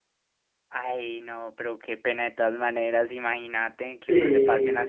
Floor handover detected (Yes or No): No